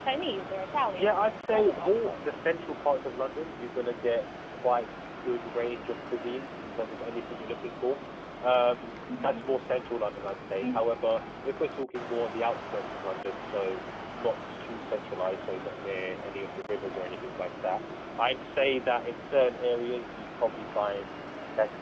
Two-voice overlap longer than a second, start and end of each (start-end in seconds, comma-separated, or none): 1.0-2.4